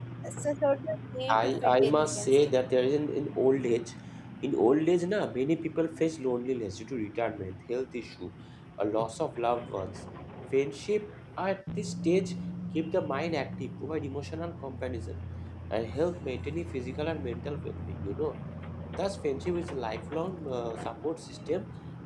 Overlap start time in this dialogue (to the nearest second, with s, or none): 1 s